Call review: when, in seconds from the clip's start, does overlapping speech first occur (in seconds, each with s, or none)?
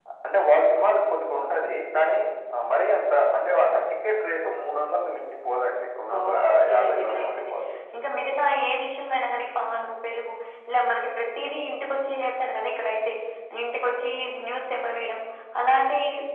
6.1 s